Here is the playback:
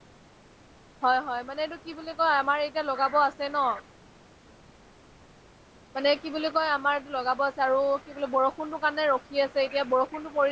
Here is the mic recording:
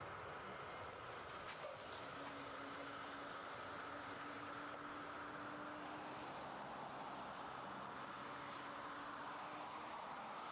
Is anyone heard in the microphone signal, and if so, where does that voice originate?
neither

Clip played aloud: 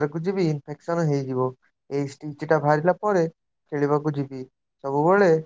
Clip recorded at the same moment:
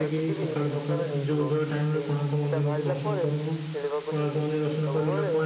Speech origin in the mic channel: both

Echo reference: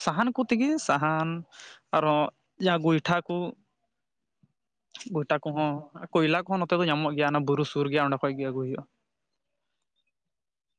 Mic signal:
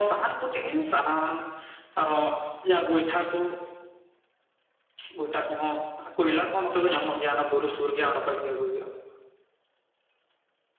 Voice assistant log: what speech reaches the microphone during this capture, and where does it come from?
echo only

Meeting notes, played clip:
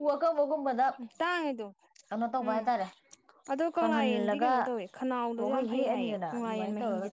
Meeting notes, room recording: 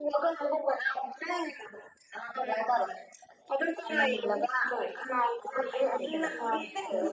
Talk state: both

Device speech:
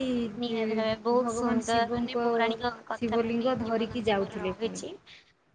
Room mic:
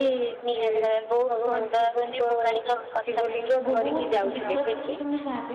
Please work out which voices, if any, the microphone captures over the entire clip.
both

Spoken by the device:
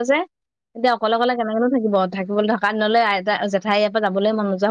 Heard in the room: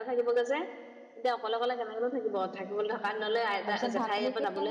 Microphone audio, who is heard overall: both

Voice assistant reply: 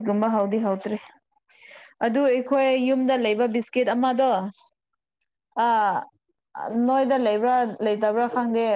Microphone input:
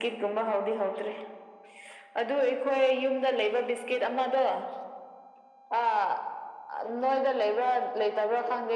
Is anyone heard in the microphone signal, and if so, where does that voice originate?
echo only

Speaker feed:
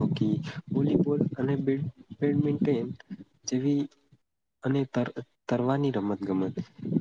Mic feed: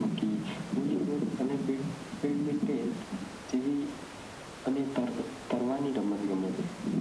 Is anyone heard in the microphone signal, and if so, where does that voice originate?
echo only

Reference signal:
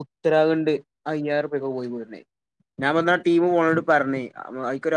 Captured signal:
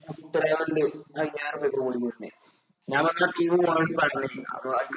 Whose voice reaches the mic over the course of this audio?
echo only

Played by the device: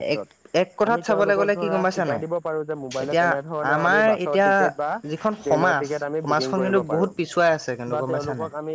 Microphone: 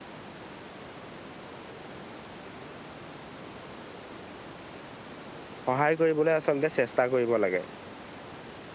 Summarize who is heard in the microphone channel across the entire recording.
user only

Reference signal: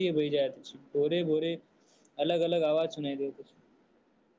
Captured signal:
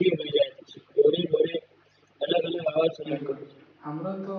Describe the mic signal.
both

